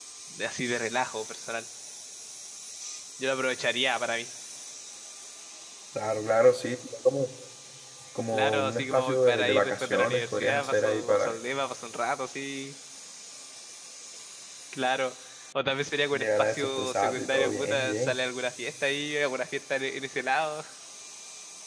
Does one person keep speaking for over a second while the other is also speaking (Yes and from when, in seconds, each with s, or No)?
Yes, from 8.3 s